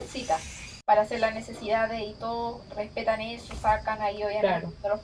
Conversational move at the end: listening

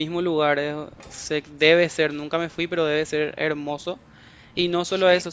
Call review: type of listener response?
listening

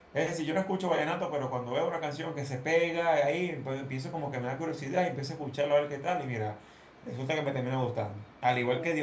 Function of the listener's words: listening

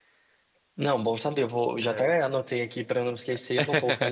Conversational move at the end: listening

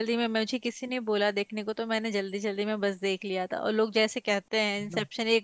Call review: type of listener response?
listening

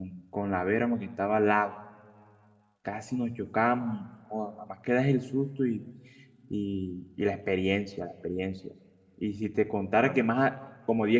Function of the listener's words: listening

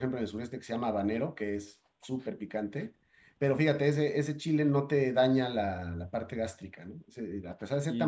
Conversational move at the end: taking over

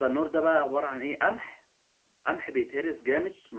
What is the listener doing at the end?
listening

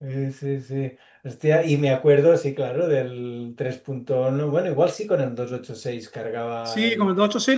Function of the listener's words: taking over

